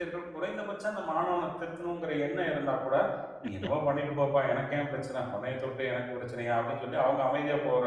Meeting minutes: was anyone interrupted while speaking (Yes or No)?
No